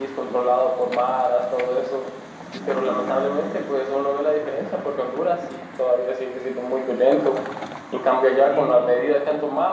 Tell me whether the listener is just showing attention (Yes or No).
Yes